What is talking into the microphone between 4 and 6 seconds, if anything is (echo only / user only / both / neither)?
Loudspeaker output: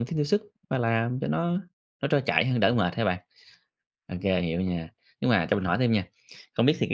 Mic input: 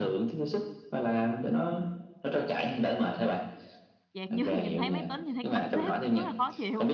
both